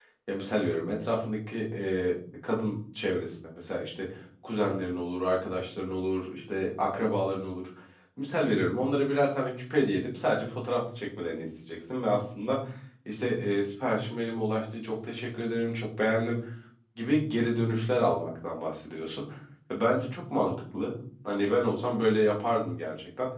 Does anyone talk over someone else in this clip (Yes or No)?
No